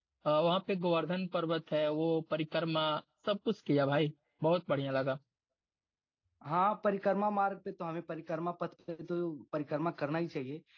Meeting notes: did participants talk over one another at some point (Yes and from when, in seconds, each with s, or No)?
No